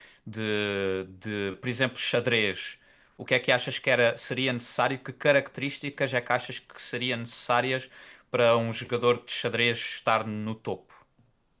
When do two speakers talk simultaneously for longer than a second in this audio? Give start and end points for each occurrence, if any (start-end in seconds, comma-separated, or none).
none